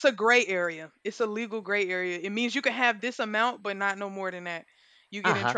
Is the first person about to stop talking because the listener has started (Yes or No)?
Yes